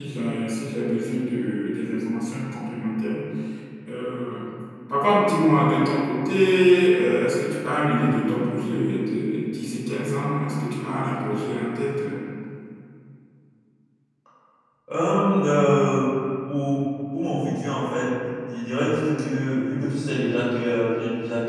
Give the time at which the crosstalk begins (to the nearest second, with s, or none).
none